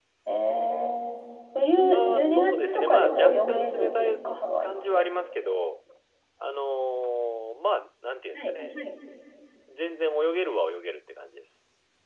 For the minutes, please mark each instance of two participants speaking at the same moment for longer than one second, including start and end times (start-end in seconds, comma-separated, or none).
1.9-4.1